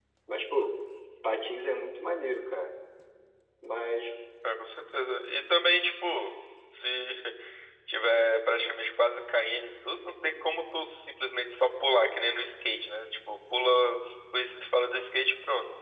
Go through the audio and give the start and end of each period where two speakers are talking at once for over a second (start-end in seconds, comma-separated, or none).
none